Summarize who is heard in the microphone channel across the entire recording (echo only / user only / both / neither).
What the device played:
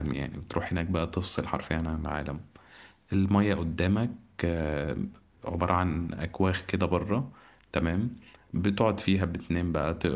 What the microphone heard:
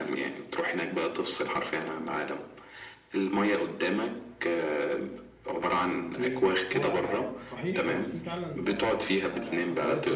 both